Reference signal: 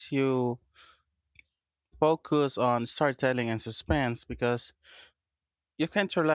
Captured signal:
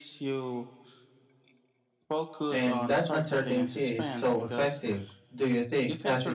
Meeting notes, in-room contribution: present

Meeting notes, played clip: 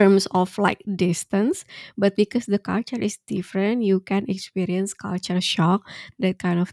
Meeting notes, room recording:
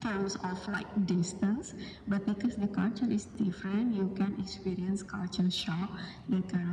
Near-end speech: none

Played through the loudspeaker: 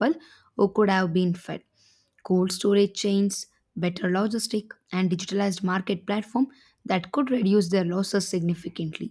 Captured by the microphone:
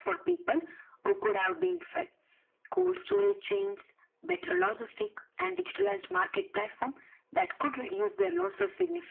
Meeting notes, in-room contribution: none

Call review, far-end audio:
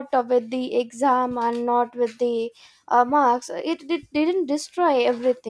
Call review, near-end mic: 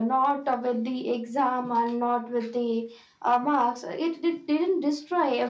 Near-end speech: none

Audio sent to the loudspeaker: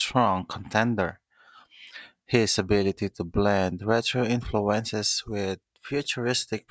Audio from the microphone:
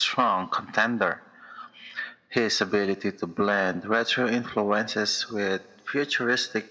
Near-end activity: none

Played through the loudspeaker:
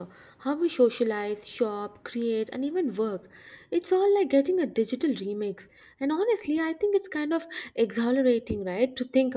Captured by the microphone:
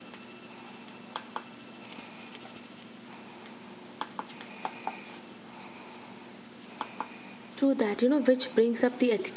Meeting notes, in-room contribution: present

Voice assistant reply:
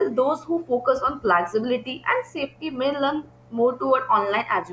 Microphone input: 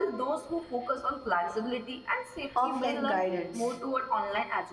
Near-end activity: present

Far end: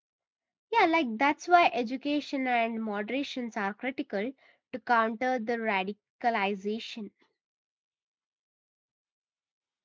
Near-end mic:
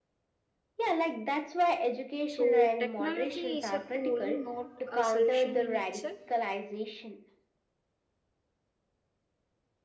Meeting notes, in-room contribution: present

